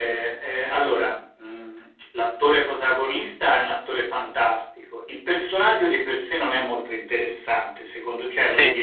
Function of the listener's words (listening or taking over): listening